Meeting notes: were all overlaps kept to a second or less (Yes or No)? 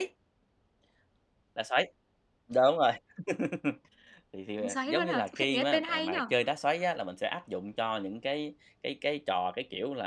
No